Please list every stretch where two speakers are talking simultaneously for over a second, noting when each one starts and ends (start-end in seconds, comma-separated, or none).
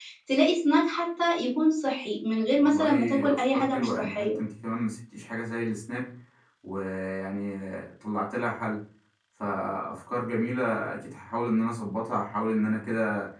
2.6-4.4